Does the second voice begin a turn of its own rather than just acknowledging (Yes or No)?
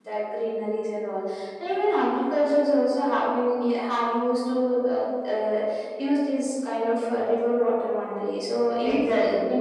No